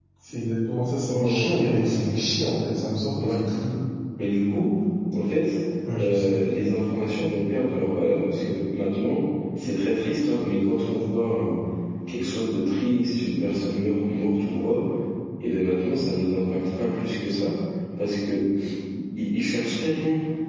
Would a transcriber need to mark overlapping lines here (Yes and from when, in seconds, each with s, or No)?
Yes, from 1.0 s